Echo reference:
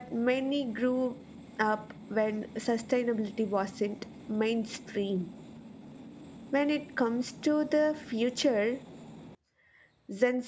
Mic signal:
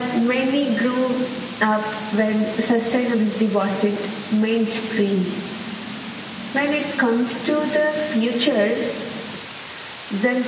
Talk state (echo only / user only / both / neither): echo only